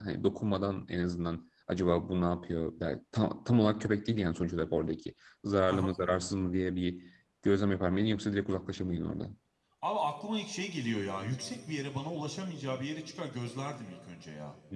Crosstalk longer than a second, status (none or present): none